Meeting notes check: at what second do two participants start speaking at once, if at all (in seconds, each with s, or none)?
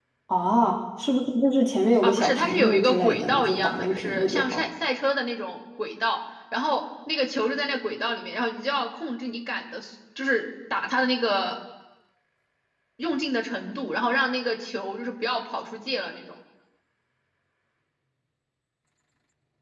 2.0 s